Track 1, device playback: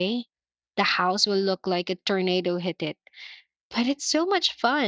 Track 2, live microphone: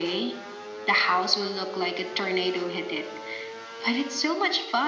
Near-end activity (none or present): none